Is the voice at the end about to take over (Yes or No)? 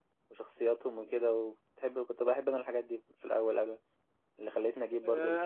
Yes